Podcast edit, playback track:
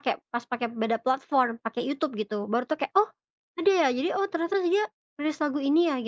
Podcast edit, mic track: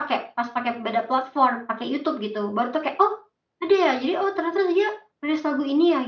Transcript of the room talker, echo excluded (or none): none